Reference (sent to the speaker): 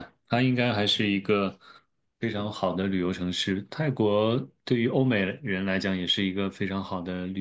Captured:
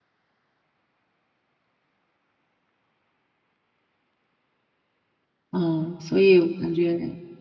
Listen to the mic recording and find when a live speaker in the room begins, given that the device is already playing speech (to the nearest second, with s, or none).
6 s